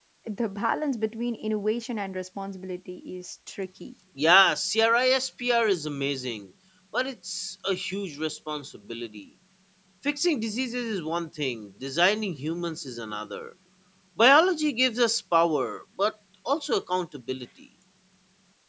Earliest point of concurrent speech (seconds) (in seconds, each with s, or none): none